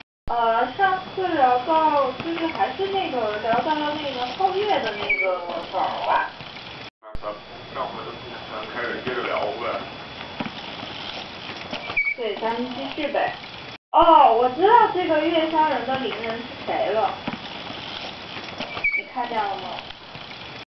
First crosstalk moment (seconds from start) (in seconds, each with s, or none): 5.0 s